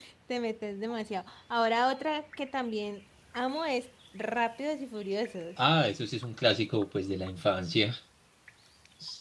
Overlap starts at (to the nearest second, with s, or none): none